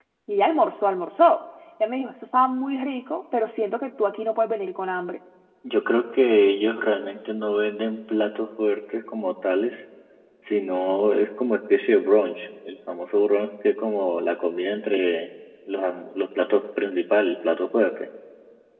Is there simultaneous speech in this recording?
No

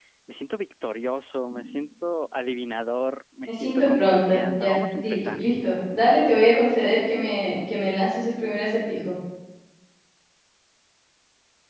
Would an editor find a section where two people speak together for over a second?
Yes, from 3.5 s

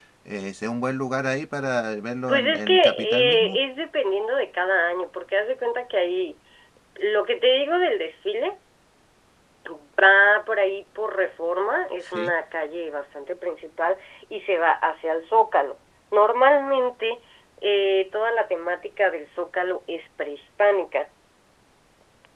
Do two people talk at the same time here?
Yes, from 2.3 s

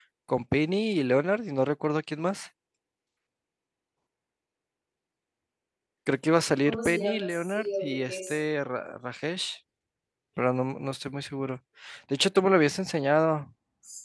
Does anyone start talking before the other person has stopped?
Yes, from 6.7 s

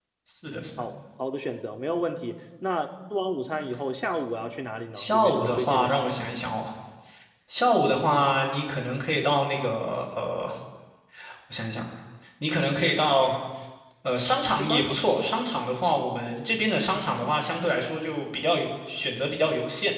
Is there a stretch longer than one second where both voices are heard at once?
Yes, from 5.0 s

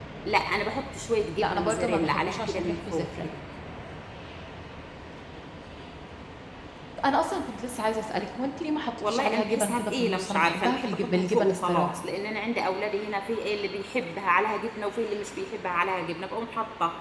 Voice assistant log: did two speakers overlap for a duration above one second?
Yes, from 1.4 s

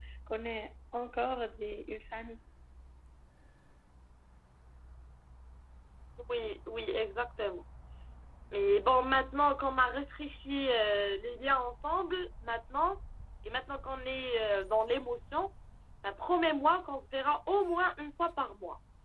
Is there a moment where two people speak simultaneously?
No

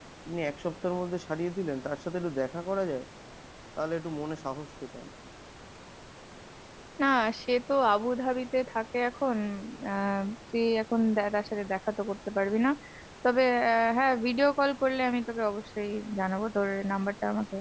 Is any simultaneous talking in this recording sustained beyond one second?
No

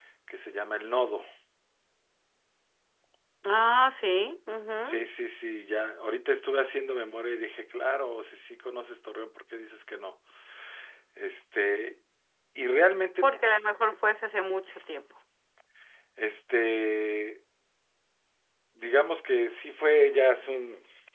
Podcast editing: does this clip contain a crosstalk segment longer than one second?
No

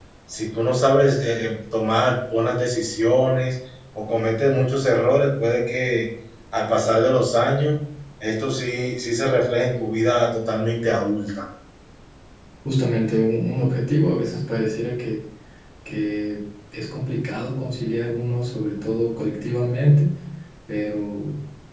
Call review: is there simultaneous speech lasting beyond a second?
No

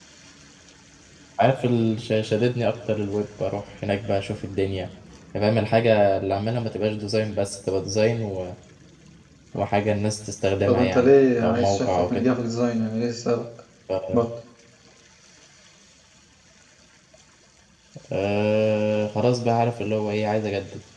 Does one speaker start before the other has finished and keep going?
Yes, from 10.7 s

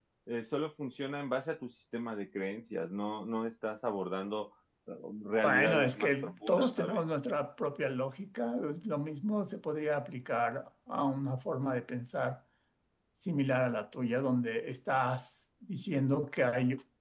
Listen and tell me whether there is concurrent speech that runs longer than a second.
Yes, from 5.4 s

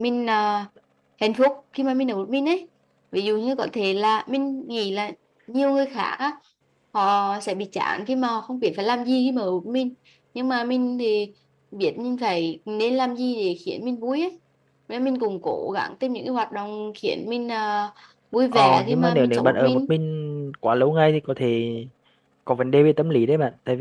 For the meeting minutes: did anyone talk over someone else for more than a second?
Yes, from 18.5 s

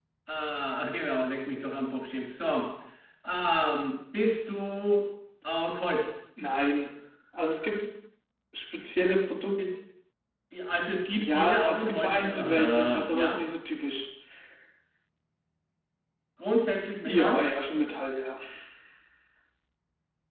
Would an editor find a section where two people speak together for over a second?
Yes, from 11.2 s

